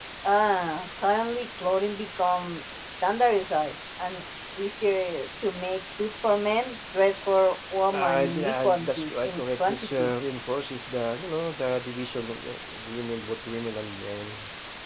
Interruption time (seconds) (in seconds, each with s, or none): 7.9 s